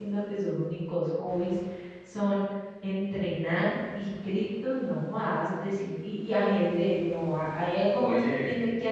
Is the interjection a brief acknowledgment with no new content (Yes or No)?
Yes